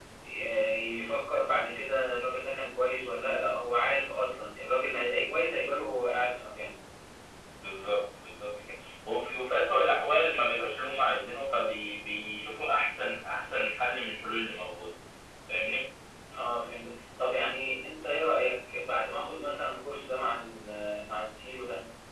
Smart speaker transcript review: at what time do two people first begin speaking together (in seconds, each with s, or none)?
none